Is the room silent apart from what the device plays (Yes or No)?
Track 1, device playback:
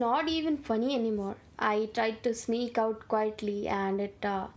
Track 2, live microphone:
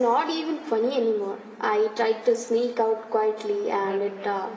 No